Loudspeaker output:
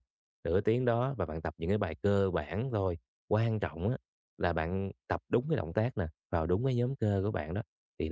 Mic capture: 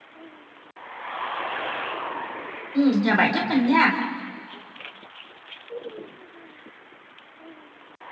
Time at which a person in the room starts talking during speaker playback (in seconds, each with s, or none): 2.7 s